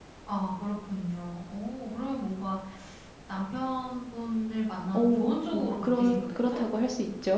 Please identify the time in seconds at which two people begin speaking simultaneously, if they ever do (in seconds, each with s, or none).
4.9 s